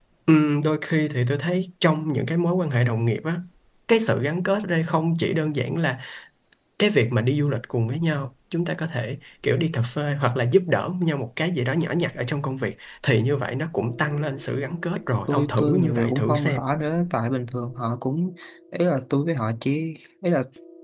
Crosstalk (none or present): present